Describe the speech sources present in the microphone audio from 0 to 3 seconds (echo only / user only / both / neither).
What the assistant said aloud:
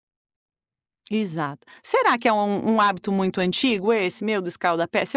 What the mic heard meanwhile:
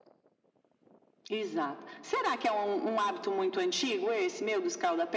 echo only